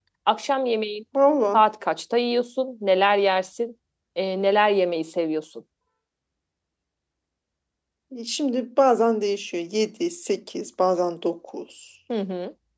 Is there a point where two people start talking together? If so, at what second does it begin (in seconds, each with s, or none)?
none